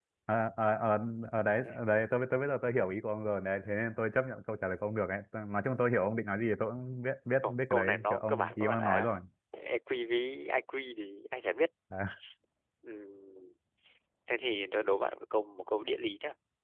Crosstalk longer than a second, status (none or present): present